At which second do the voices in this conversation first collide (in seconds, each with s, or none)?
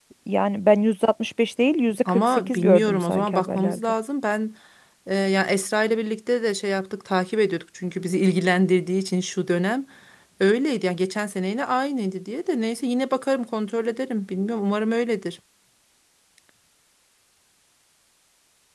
2.0 s